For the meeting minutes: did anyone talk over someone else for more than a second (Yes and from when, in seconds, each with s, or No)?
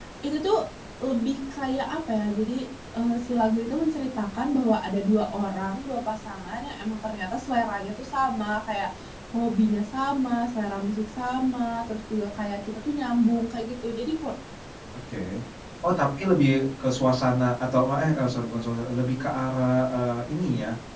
No